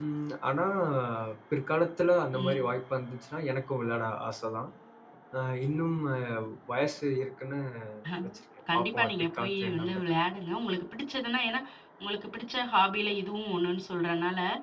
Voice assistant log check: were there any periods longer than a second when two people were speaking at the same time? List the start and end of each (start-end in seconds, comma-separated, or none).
8.7-10.0